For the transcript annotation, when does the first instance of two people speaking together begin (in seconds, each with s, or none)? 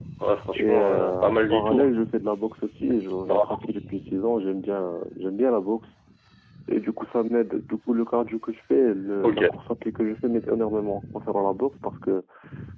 0.6 s